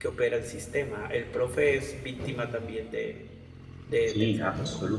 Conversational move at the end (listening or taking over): taking over